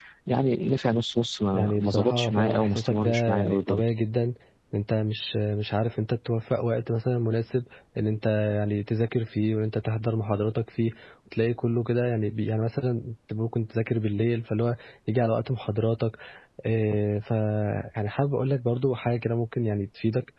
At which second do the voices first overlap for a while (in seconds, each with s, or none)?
1.5 s